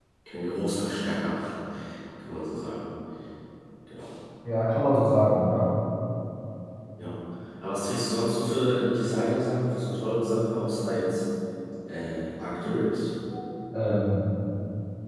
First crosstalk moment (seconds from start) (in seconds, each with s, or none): none